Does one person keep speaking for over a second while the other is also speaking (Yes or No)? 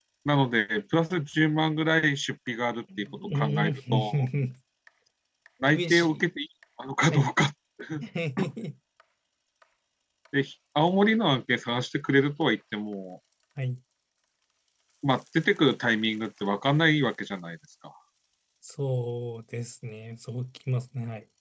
Yes